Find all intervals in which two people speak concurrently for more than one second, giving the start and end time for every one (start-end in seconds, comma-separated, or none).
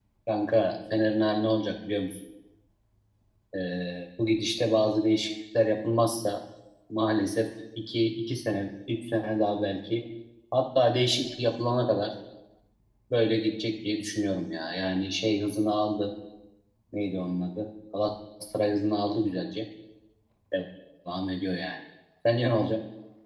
none